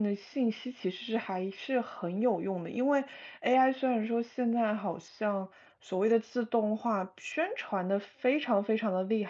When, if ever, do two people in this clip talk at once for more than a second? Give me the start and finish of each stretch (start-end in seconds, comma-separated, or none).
none